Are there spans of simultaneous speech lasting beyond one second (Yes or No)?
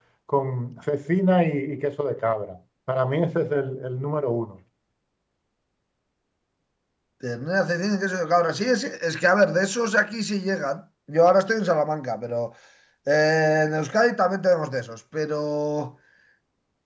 No